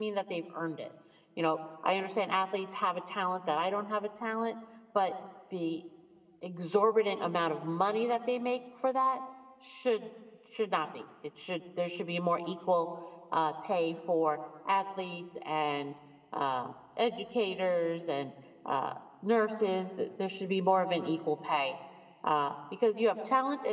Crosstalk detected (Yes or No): No